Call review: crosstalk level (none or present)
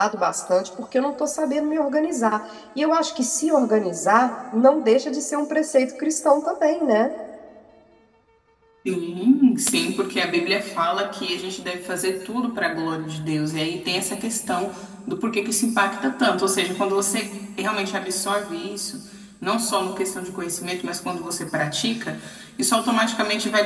none